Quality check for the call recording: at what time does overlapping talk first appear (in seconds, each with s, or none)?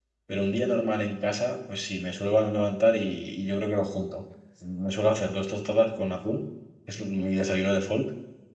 none